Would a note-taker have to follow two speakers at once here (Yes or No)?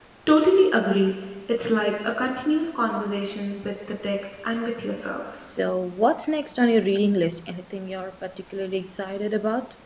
No